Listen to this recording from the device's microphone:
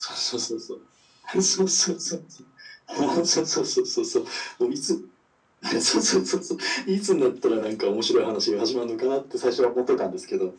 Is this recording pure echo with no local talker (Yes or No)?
Yes